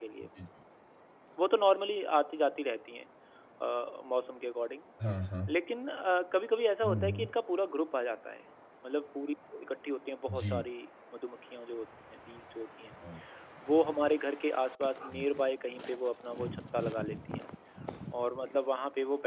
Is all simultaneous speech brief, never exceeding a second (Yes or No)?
Yes